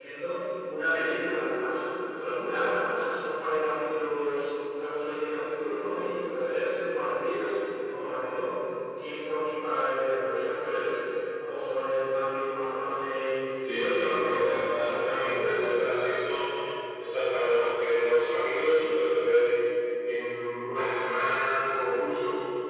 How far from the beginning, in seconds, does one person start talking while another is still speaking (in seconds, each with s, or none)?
13.6 s